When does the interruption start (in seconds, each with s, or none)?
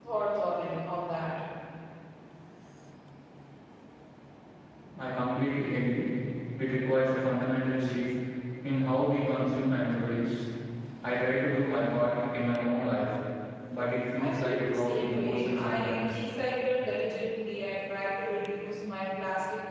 14.2 s